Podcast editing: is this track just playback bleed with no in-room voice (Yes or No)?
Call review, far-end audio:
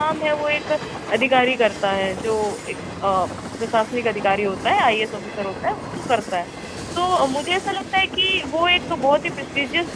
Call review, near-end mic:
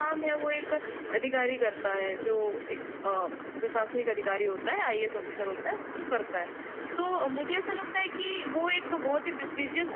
Yes